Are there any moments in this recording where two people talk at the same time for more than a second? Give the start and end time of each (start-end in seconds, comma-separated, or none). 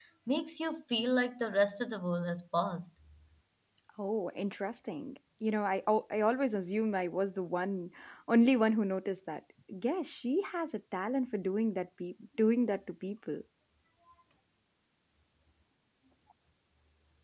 none